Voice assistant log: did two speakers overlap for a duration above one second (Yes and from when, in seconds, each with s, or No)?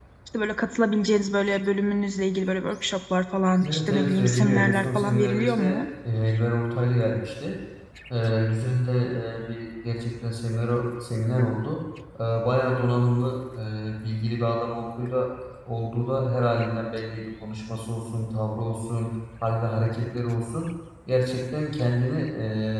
Yes, from 3.6 s